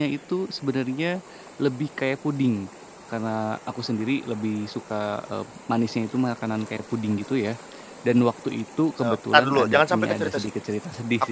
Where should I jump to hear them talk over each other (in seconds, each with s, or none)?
9.0 s